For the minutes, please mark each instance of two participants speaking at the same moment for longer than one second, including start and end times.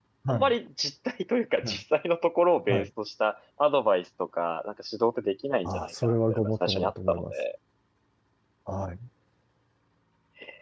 5.6-7.3

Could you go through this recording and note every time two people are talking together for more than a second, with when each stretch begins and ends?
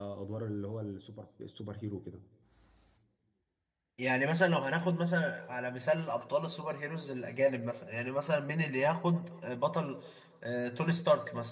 none

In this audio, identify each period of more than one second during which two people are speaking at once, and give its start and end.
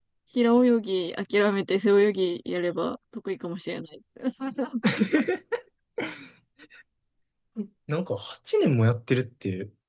none

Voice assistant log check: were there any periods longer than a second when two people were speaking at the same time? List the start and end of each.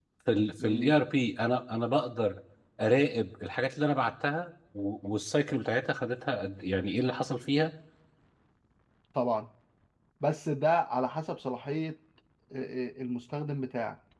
none

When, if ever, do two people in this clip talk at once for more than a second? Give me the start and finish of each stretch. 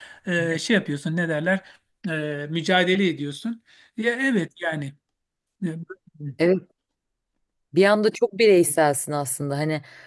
none

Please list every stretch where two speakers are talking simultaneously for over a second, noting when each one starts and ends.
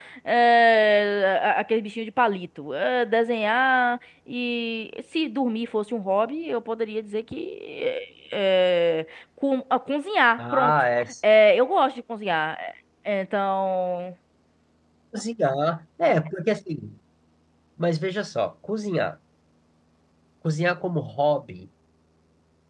none

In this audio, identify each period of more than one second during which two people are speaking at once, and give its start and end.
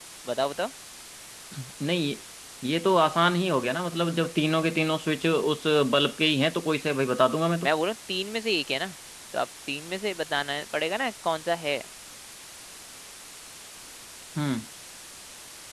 none

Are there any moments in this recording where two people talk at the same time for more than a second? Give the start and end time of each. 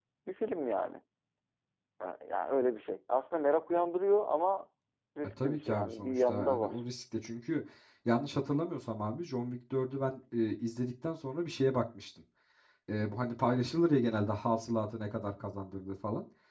5.4-6.8

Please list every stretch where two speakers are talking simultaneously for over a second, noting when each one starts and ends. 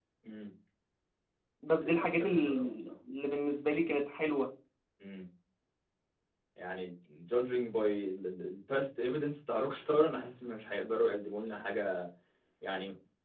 1.7-2.9

